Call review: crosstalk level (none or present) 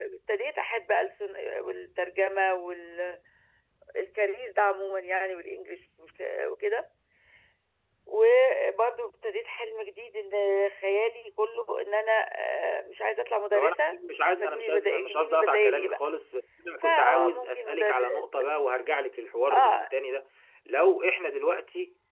present